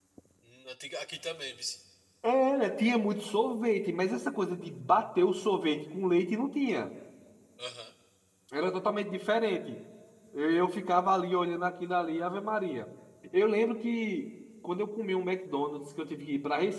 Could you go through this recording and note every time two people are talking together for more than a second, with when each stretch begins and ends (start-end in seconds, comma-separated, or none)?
none